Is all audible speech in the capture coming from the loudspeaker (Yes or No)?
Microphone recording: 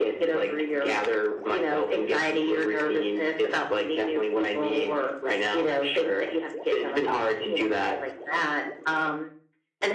Yes